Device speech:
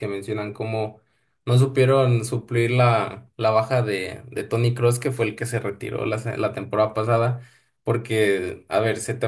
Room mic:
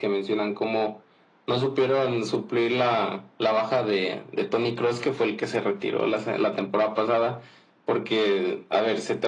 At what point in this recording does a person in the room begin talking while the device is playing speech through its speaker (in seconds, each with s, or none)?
none